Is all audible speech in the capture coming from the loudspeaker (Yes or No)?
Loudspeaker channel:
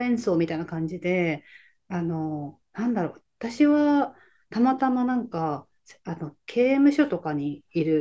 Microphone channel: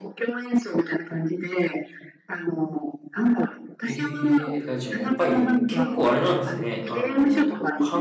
No